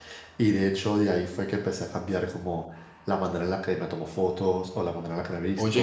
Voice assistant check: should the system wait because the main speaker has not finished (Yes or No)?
Yes